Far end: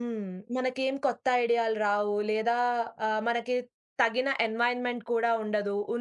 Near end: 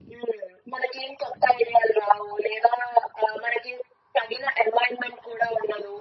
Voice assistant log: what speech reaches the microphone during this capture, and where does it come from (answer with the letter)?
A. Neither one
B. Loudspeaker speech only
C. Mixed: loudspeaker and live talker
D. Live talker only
B